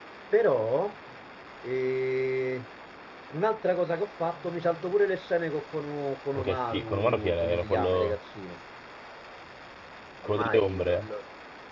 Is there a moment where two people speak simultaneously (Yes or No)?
Yes